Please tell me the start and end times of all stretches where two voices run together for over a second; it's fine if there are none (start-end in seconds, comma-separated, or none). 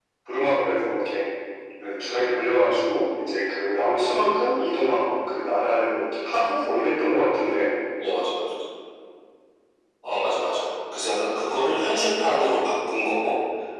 none